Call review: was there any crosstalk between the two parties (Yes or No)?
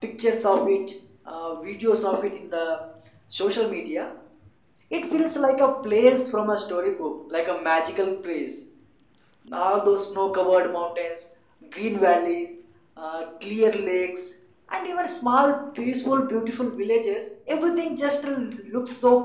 No